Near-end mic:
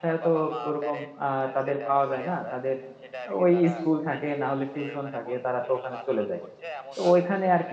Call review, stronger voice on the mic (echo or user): user